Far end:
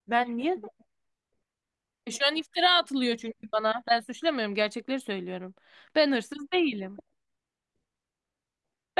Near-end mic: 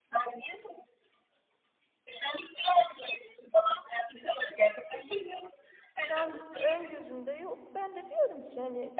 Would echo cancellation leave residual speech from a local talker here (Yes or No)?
Yes